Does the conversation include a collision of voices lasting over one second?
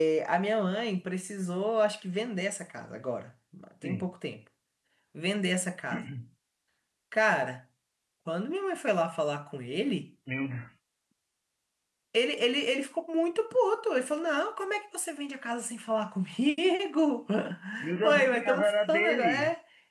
Yes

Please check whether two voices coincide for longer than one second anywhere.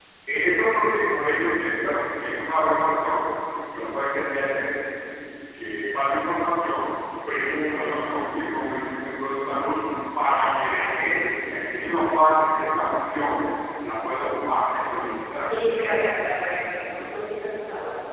No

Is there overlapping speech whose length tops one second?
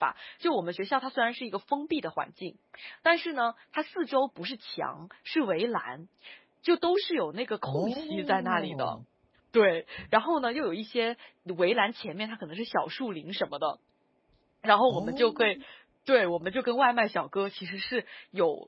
Yes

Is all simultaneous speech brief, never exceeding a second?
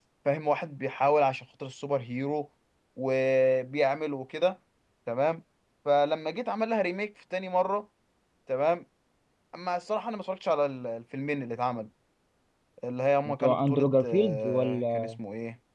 No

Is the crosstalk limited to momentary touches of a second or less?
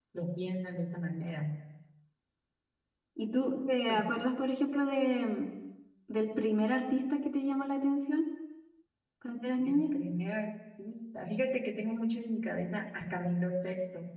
Yes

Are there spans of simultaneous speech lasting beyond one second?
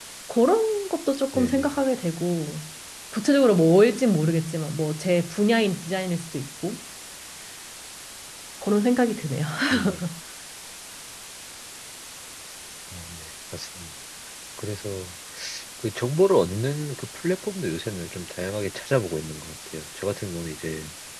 No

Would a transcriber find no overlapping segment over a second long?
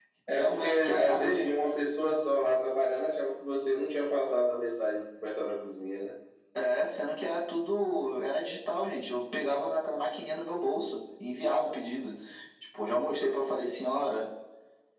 No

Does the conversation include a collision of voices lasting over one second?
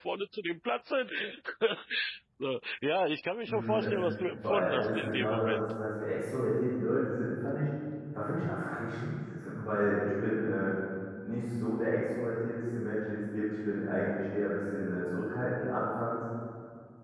Yes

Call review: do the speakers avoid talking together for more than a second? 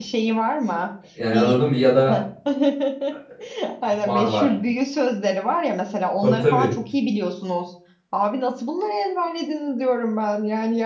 Yes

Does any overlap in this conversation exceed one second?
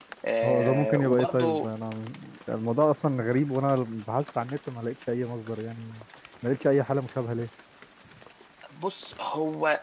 Yes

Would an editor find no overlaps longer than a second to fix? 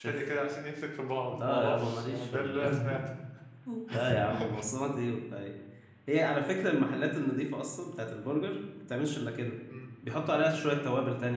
No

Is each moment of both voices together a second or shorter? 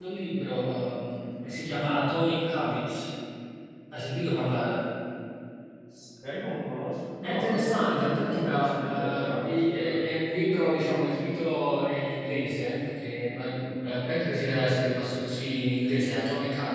No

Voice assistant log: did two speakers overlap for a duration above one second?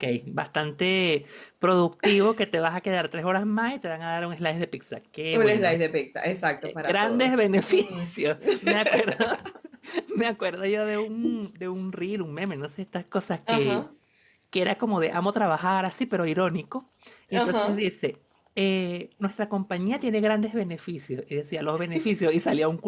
Yes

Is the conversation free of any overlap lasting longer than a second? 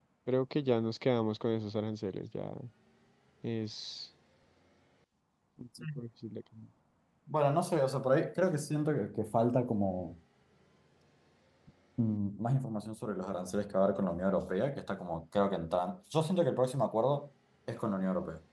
Yes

